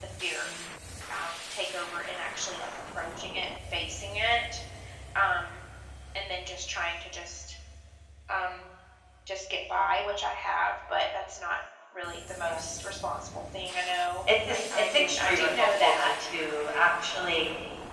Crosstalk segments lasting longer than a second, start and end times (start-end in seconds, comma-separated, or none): 14.5-16.1